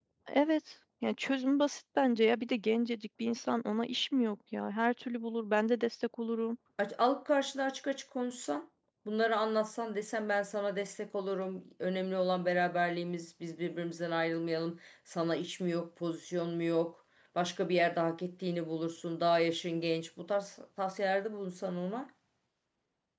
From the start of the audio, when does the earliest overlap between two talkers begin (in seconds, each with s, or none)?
none